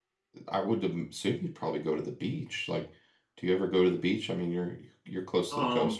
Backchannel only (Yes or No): No